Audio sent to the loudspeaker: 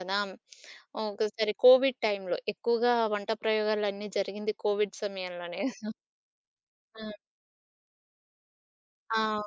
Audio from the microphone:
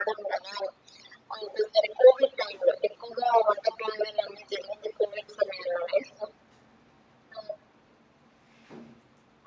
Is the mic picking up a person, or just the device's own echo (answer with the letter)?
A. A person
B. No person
B